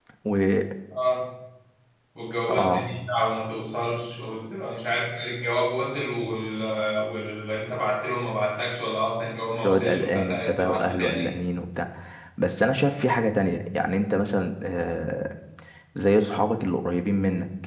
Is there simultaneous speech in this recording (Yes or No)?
Yes